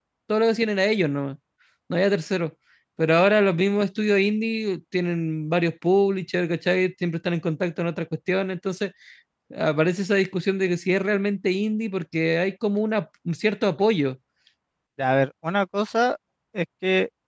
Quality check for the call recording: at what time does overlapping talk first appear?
none

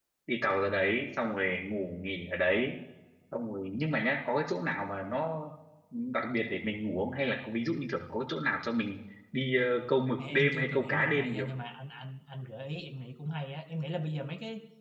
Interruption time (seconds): 10 s

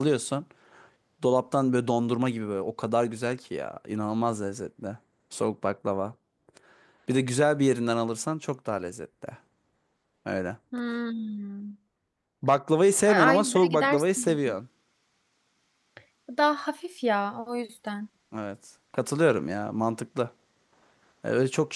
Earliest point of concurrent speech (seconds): 13 s

